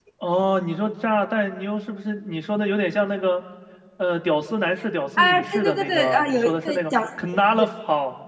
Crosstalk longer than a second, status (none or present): present